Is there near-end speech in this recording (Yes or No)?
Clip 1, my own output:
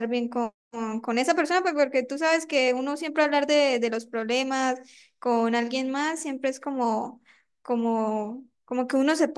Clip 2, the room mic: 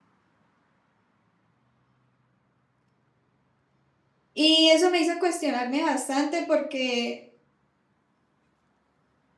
Yes